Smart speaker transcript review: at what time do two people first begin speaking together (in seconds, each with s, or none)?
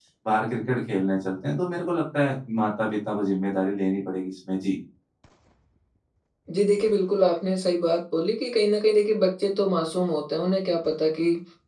none